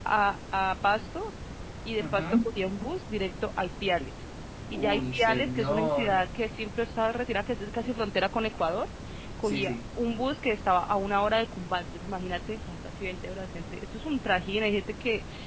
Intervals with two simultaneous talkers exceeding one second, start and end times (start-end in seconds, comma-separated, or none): 4.8-6.2